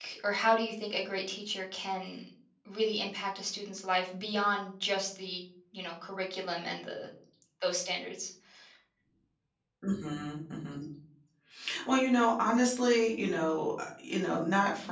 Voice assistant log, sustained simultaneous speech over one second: none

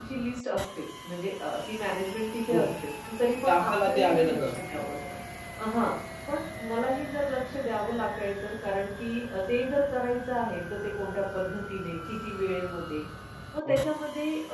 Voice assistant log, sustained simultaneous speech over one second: present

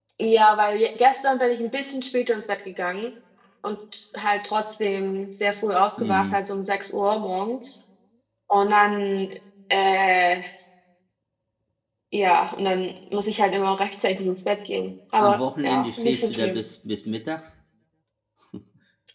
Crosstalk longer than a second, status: present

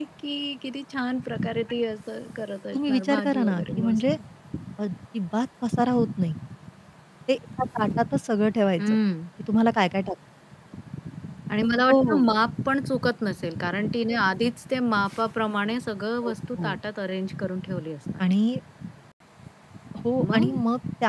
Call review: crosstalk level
present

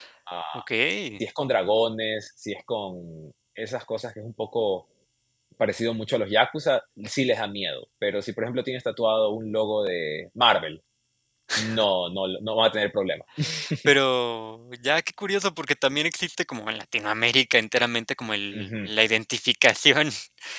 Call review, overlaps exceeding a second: none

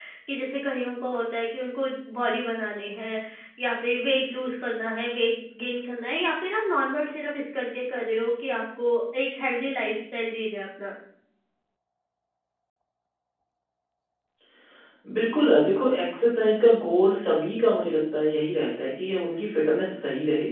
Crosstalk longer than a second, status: none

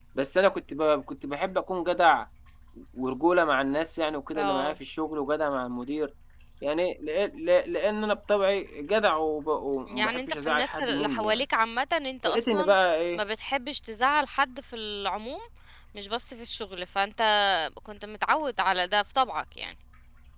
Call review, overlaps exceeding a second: present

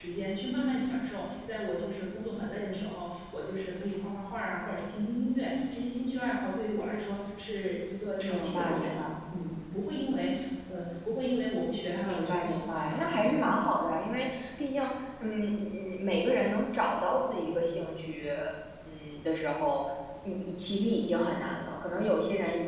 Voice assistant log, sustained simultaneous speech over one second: present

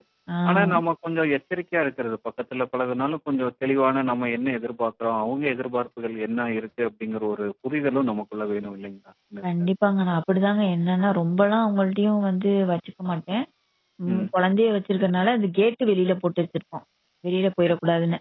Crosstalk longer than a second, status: none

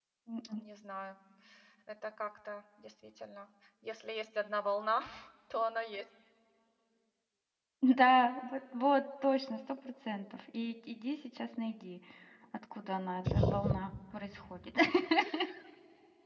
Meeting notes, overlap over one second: none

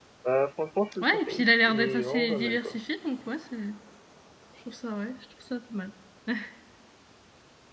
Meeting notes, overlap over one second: present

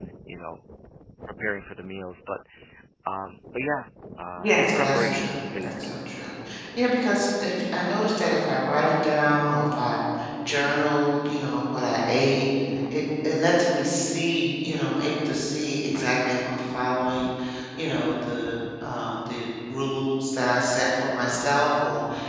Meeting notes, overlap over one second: present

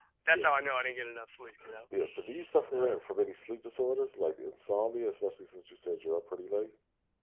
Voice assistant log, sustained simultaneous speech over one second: none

